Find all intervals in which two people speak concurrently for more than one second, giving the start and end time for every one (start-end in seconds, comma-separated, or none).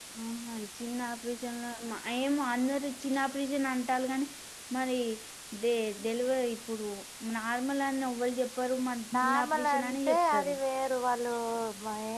9.2-10.5